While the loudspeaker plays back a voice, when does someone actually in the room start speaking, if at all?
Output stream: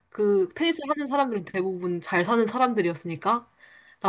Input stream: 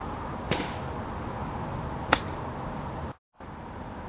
none

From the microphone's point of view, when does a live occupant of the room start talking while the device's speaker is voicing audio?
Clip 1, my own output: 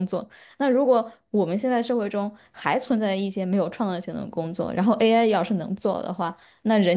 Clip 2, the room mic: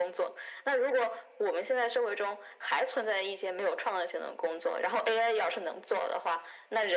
none

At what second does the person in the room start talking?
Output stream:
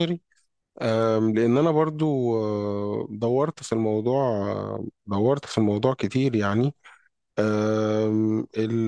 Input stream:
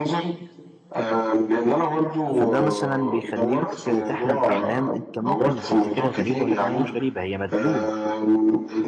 2.3 s

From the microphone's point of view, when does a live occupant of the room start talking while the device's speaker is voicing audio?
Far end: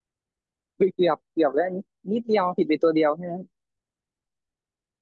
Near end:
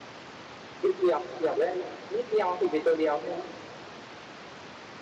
none

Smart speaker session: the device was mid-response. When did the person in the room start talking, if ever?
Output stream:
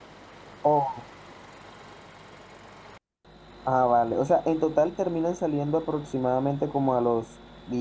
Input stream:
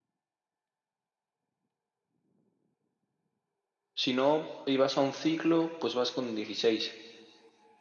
3.9 s

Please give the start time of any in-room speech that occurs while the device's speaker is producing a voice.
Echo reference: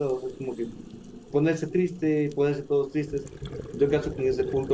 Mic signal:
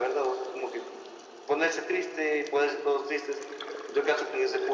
none

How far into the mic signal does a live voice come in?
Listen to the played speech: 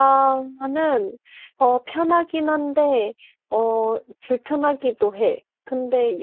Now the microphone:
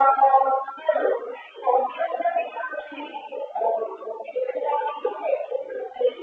none

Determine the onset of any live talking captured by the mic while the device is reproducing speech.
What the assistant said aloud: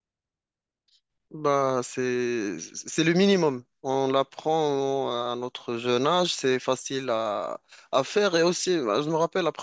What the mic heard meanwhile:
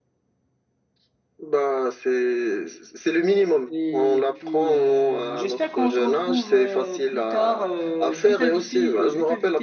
3.7 s

